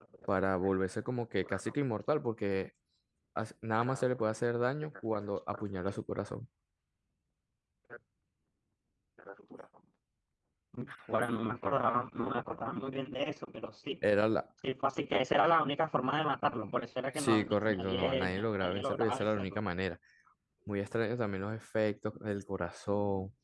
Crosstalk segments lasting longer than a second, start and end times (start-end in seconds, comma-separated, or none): 17.2-19.6